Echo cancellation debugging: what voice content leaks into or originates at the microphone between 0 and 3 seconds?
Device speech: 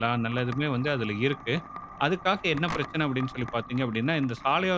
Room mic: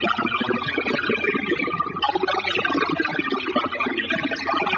echo only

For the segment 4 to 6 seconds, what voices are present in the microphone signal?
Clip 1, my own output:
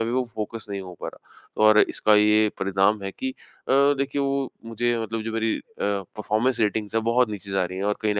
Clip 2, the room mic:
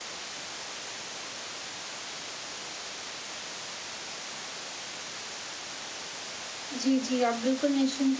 neither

